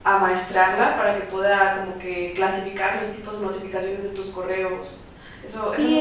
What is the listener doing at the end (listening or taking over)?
taking over